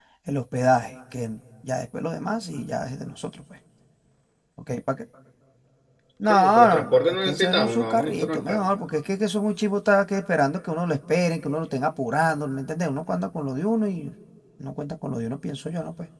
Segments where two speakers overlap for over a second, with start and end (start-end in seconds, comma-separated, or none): 6.3-8.3